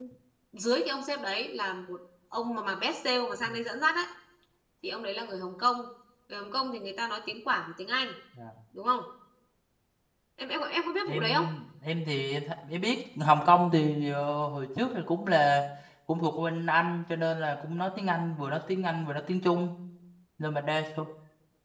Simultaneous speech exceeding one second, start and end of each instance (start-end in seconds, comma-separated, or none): none